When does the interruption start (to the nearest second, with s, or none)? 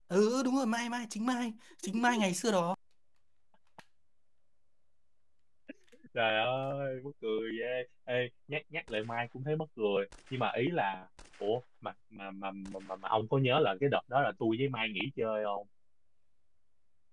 none